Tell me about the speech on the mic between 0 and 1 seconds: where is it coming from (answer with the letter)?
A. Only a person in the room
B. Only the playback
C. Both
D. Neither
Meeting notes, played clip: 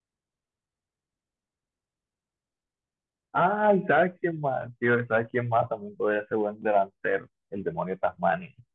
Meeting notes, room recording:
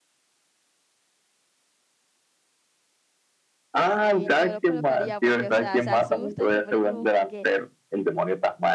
D